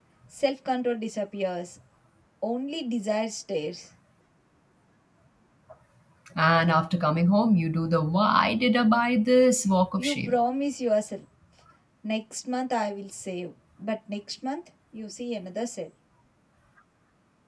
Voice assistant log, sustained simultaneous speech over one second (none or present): none